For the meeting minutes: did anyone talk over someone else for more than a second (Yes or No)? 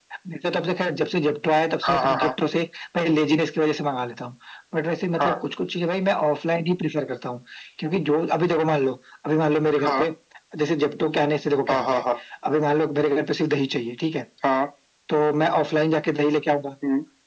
No